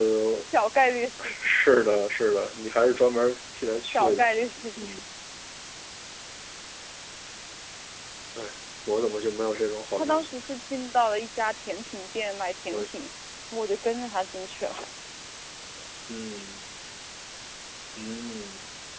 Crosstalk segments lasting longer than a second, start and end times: none

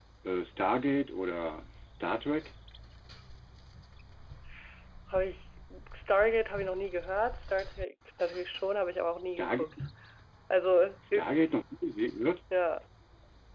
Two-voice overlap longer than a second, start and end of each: none

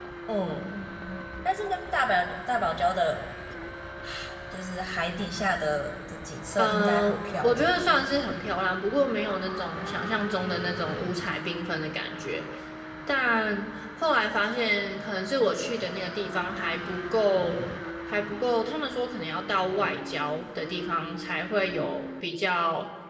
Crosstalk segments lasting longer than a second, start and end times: 6.6-8.1

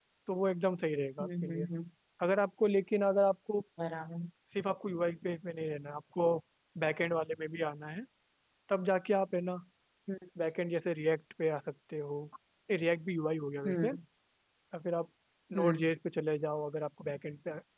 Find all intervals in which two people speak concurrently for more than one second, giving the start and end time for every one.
none

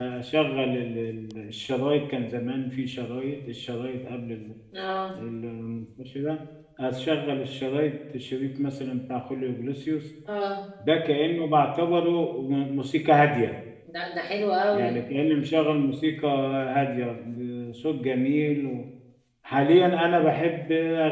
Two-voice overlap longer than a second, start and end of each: none

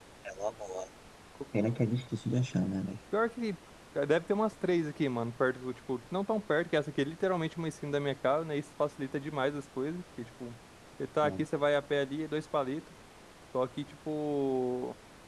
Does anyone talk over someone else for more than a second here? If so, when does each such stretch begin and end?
none

